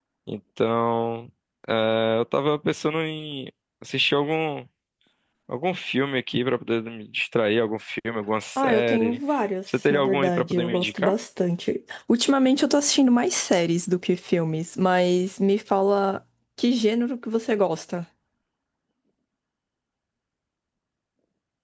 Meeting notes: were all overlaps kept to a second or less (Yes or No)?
No